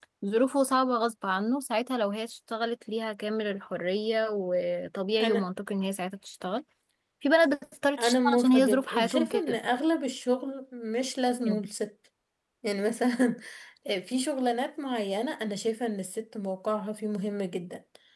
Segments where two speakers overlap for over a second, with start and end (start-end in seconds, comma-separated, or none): 8.0-9.6